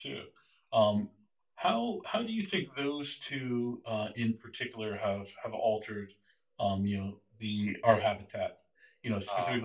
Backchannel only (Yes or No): Yes